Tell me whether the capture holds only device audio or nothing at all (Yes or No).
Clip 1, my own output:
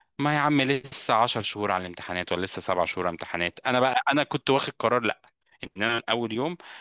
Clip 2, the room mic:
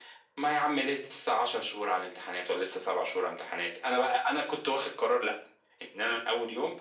Yes